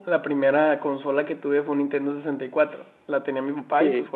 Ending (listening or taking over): listening